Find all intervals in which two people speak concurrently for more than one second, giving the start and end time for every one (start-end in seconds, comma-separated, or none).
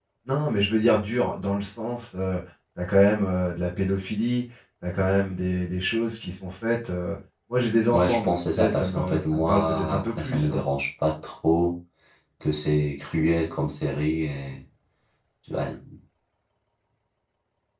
7.9-10.6